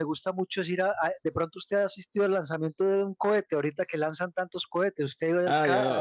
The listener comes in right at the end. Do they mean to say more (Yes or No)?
Yes